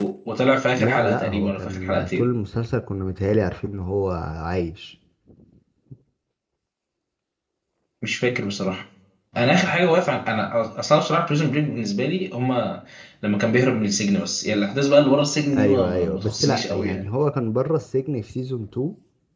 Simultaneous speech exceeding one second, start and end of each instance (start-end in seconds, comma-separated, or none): 0.8-2.3, 15.6-17.0